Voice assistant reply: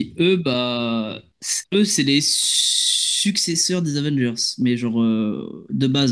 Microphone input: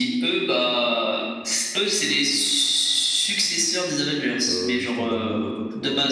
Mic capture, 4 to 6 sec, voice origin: both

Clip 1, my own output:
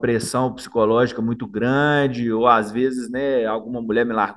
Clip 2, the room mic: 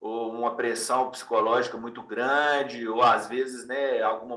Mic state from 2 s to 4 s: echo only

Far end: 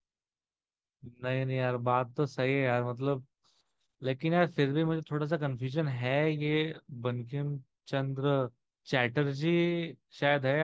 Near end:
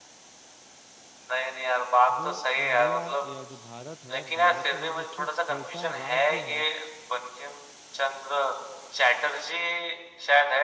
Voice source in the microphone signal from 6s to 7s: both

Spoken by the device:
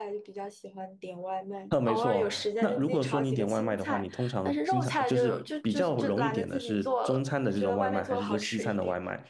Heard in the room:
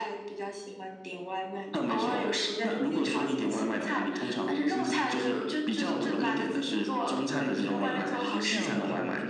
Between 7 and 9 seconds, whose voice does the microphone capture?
both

